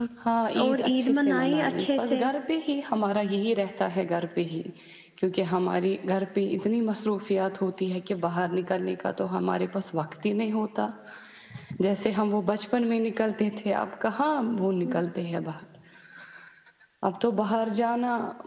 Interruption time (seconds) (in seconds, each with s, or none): 0.6 s